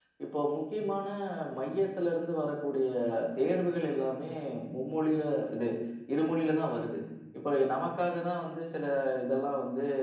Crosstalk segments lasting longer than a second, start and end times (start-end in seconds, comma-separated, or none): none